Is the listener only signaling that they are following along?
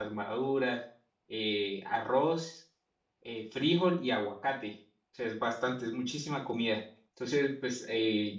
Yes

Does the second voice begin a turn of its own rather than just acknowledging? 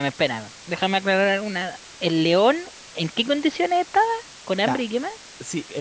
Yes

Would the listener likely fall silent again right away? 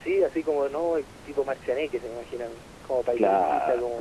No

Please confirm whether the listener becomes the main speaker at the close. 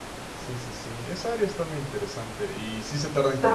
No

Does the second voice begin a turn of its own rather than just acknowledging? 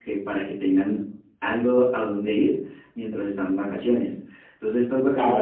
Yes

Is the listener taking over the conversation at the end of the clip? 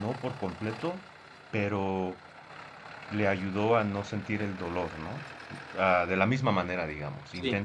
No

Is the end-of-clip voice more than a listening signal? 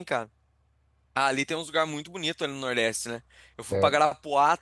No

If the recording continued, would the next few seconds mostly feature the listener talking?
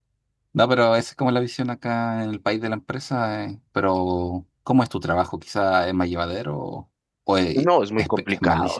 Yes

